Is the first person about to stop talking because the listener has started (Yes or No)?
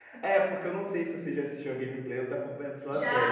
Yes